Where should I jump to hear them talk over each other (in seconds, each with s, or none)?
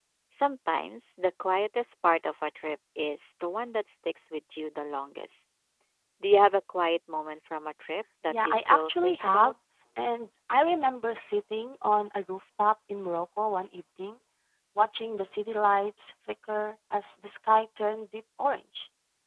8.3 s